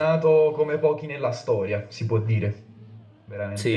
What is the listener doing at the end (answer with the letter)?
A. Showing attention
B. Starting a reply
B